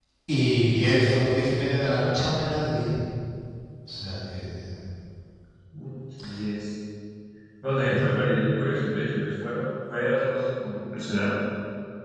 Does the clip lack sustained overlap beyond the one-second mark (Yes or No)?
Yes